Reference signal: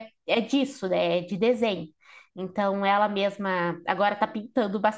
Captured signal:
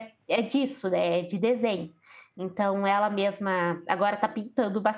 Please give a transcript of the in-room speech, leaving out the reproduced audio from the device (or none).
none